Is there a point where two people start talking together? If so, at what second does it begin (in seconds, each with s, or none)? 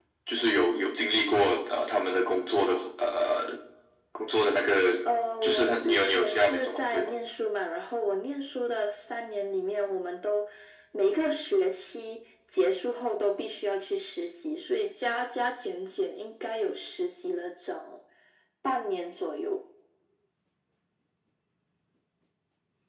5.4 s